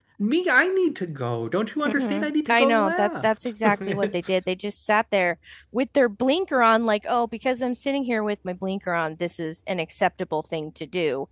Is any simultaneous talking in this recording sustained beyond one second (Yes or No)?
Yes